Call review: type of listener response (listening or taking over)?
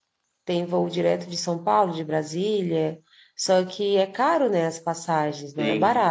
taking over